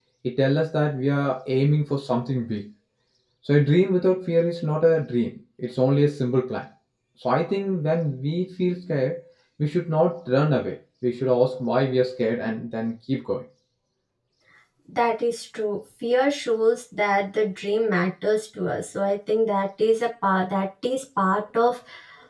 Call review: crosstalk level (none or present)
none